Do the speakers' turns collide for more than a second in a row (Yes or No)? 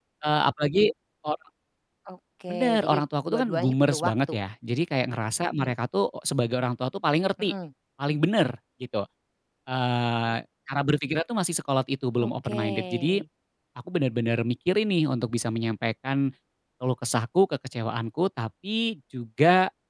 Yes